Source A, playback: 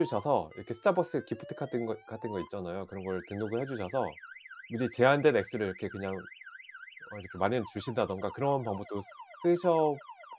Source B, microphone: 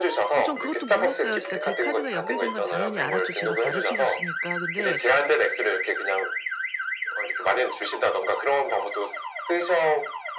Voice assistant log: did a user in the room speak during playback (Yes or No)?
Yes